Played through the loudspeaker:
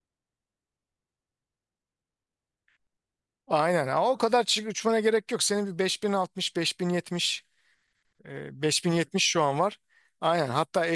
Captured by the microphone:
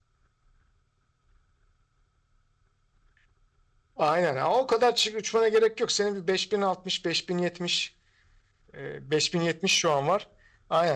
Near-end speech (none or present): none